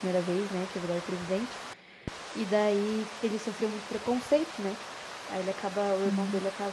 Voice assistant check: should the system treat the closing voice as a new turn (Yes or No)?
No